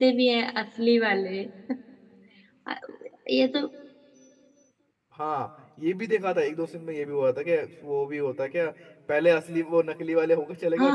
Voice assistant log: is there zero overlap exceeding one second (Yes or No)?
Yes